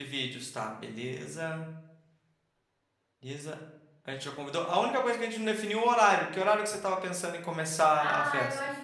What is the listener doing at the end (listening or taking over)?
taking over